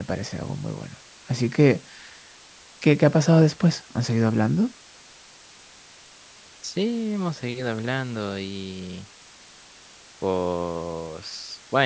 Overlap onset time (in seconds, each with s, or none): none